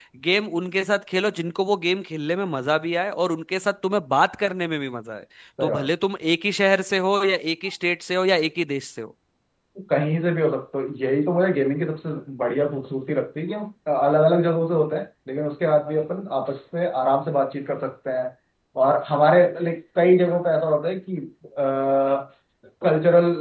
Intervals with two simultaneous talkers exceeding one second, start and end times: none

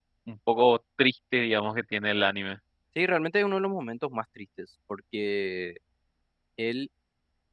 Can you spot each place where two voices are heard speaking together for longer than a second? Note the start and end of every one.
none

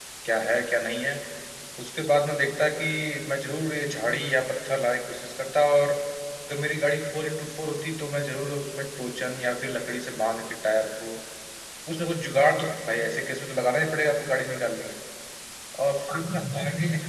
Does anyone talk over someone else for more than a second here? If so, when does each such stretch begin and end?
none

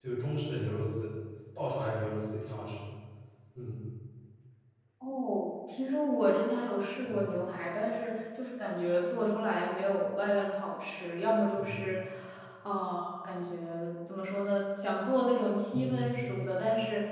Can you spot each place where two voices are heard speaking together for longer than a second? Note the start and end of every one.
none

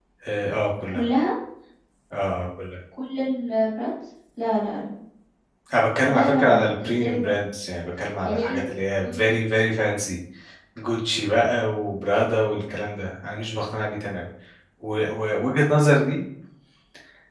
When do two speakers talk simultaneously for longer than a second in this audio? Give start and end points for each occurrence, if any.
6.1-7.3

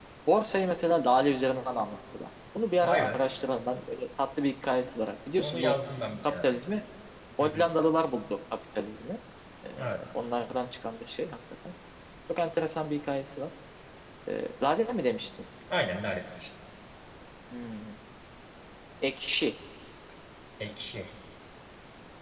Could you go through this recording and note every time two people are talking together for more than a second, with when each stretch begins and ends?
none

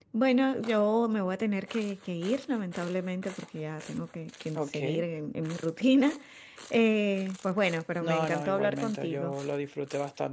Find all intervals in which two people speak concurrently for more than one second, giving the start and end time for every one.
8.0-9.3

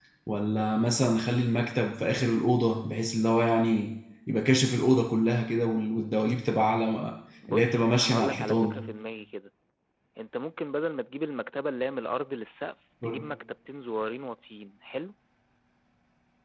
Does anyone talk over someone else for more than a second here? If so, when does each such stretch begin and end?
7.5-8.8

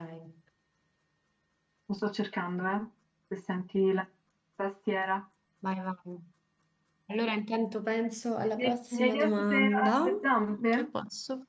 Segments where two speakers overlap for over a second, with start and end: 8.6-10.1

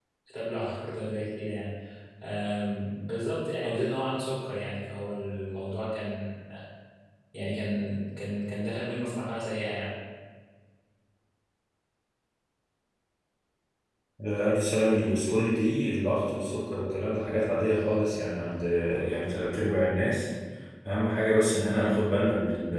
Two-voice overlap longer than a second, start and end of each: none

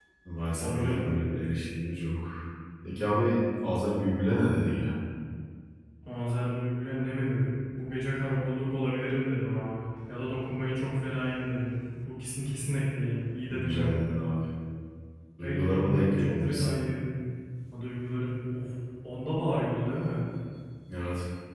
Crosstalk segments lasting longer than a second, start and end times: 15.4-16.7

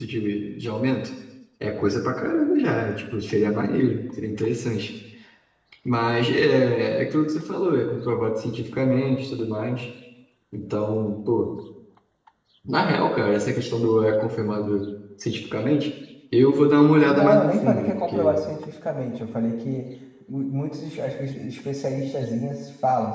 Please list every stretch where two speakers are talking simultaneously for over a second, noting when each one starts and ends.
17.0-18.4

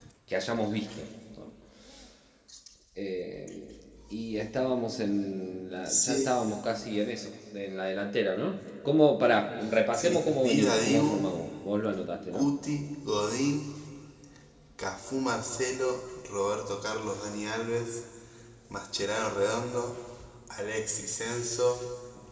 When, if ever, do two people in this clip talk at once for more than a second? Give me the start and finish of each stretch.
9.9-11.3

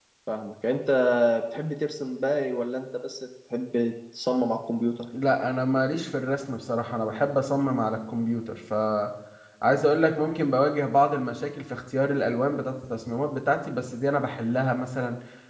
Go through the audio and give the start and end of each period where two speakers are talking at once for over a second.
none

